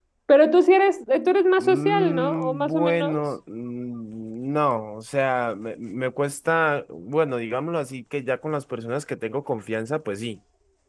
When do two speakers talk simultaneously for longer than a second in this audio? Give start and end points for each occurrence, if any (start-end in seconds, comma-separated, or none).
1.6-3.2